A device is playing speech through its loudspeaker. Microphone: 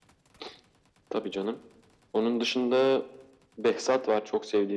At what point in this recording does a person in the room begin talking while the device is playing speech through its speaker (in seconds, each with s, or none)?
none